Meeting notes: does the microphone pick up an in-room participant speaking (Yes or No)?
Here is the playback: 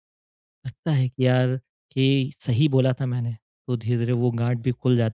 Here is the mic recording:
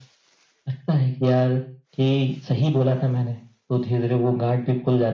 No